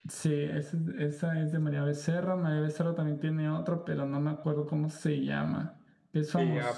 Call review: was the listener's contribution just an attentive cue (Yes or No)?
No